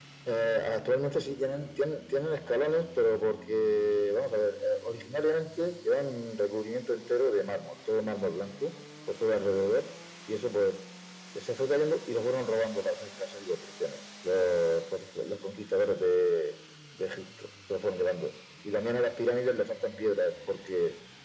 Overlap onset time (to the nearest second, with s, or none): none